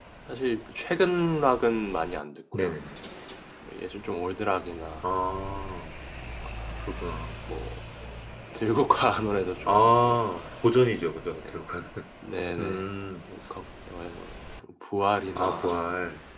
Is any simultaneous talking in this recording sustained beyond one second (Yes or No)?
No